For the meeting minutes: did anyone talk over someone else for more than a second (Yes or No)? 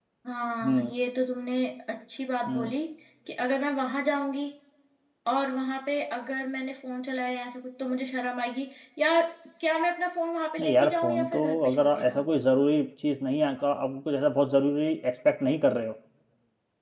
Yes